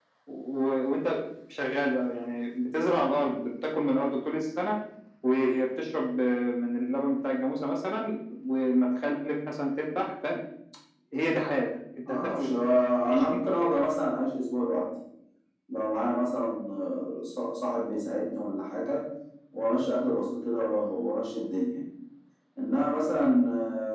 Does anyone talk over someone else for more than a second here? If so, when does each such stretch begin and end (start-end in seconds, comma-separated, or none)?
none